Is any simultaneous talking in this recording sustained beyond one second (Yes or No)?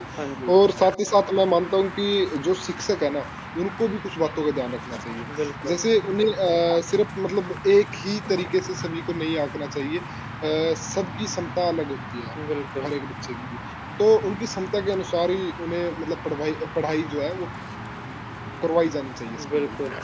No